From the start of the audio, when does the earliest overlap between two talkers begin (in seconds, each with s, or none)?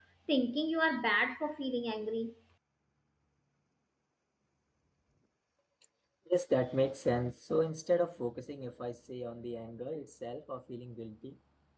none